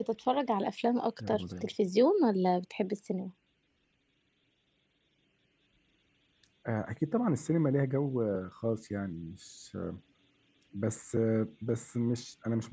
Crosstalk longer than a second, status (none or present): none